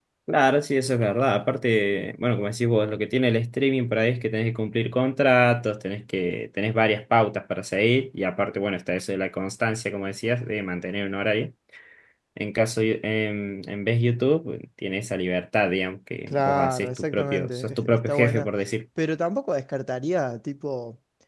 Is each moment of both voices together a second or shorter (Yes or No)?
No